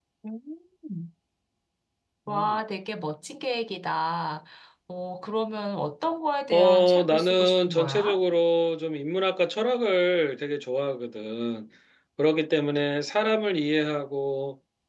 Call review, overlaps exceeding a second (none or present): present